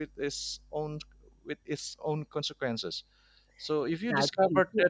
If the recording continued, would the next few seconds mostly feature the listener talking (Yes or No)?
Yes